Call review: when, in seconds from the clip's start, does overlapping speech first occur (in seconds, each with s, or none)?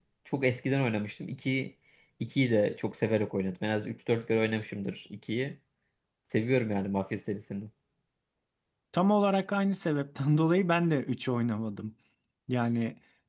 none